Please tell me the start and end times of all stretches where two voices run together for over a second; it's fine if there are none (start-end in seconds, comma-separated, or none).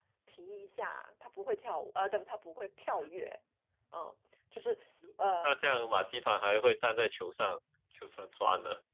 none